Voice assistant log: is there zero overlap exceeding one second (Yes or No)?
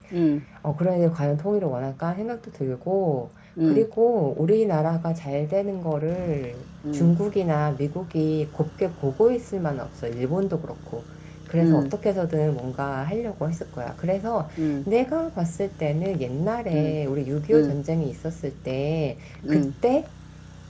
Yes